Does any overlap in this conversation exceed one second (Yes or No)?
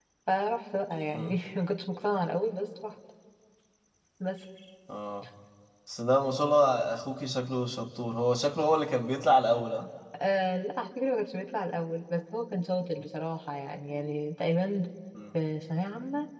No